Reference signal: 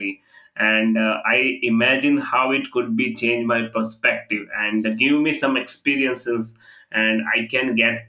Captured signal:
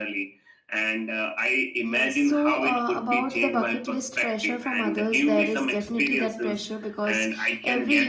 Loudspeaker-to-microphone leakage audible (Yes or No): Yes